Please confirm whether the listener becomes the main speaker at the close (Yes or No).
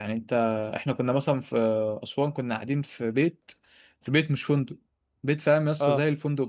No